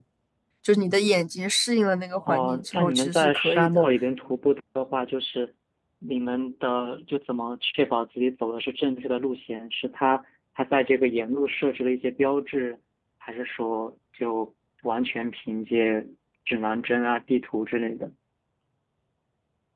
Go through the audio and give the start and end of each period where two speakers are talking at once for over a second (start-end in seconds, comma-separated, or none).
2.2-3.8